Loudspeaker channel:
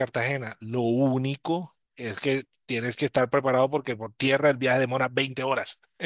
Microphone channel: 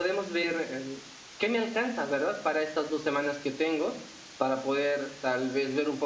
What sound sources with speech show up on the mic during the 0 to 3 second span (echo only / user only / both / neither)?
user only